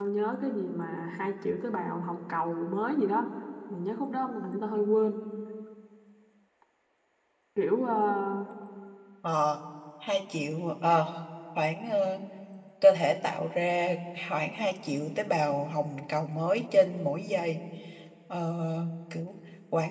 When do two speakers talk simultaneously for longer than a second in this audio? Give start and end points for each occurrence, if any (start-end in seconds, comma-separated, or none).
none